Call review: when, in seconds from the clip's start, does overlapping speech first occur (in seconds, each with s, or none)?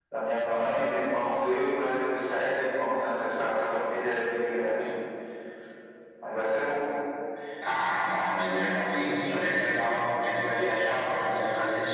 none